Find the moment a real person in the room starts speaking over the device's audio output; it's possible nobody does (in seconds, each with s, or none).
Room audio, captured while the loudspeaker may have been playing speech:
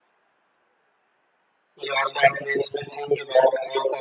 none